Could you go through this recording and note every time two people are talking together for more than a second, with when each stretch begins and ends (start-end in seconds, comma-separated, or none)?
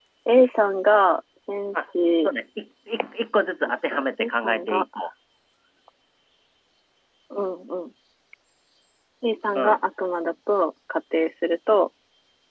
3.6-4.8